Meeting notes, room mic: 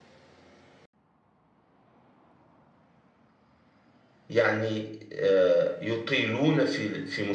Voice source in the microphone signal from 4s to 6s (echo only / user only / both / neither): user only